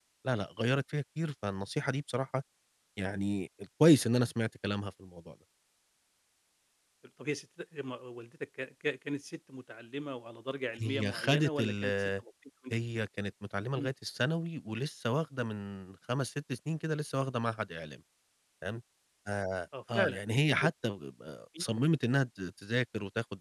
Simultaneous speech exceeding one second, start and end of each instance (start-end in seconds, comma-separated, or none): 10.8-12.1